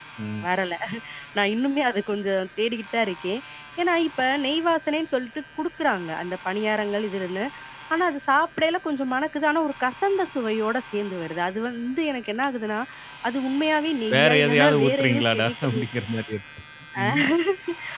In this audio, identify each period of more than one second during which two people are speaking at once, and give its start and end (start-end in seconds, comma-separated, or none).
14.1-15.7